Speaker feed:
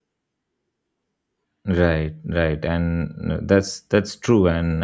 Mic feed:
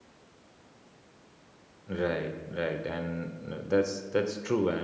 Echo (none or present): present